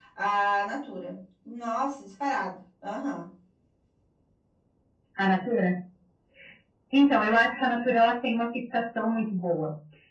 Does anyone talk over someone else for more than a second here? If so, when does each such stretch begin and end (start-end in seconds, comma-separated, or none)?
none